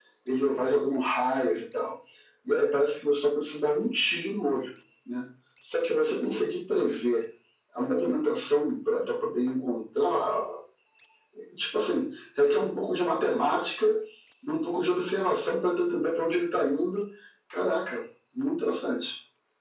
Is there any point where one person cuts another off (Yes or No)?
No